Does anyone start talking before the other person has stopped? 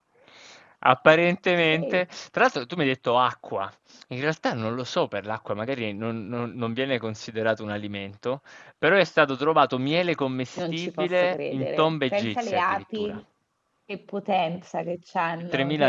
Yes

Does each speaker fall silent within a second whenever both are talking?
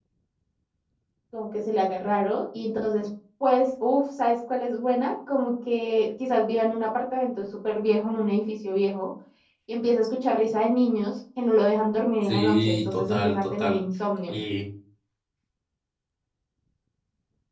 No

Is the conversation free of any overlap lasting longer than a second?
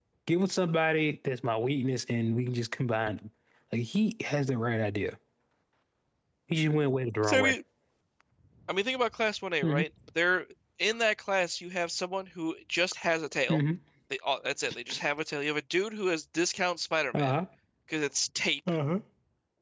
Yes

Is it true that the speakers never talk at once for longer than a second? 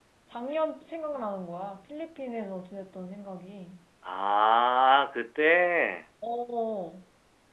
Yes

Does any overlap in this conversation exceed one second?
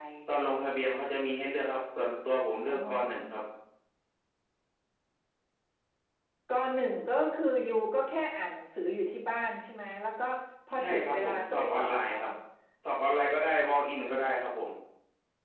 Yes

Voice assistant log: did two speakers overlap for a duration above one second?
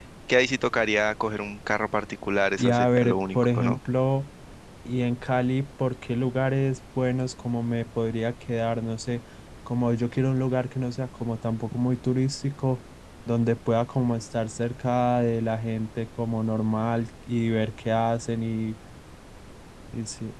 Yes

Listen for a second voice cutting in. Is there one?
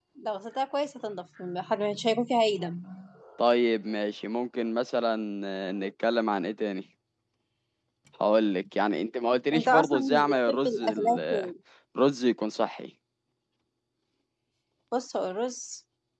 Yes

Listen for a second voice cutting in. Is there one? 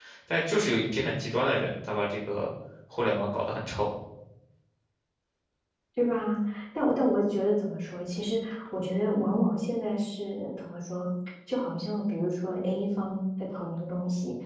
No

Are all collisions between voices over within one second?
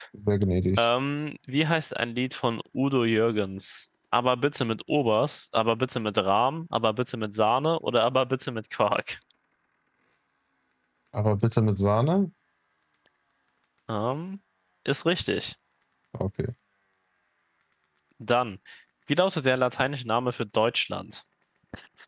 Yes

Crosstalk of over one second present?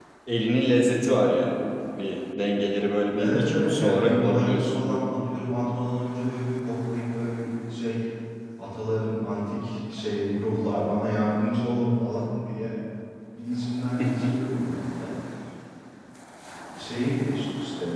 Yes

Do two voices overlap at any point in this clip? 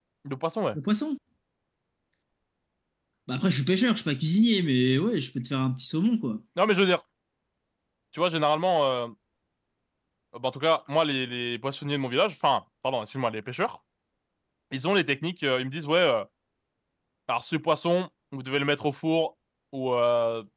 No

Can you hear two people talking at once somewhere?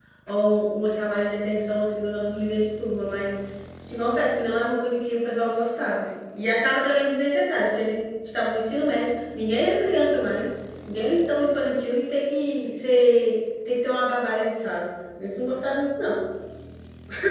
No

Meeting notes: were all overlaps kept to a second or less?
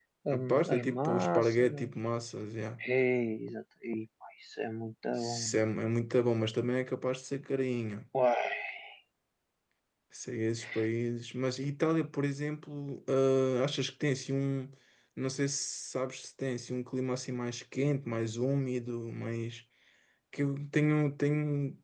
No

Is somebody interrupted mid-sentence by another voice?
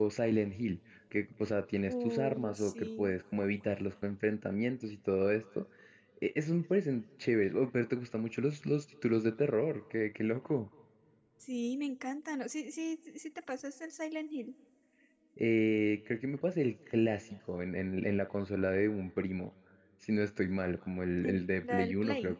Yes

